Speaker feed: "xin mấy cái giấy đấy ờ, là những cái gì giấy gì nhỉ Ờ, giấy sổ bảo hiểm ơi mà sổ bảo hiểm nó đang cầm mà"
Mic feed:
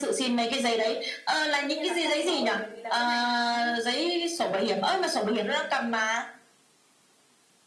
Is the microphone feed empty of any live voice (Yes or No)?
No